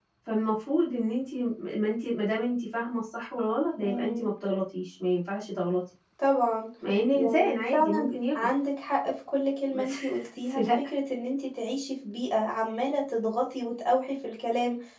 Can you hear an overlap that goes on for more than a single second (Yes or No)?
Yes